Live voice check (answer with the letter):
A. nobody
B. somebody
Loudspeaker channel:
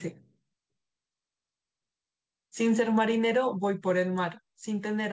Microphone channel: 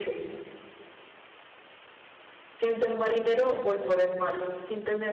A